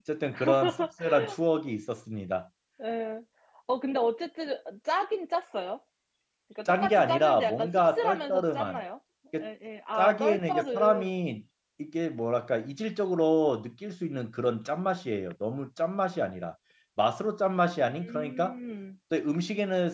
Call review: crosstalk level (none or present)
present